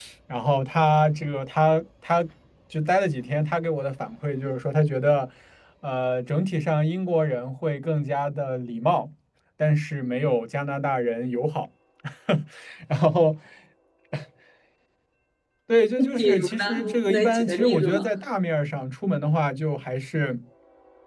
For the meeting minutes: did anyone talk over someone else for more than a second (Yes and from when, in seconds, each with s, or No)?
Yes, from 16.1 s